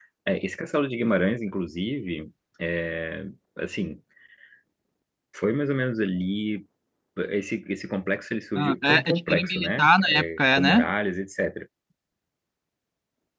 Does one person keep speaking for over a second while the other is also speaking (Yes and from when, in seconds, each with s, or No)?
Yes, from 8.6 s